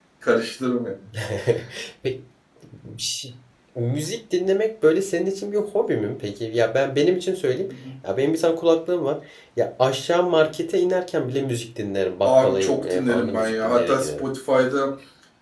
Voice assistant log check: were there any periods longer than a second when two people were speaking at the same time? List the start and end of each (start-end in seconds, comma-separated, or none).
12.2-14.2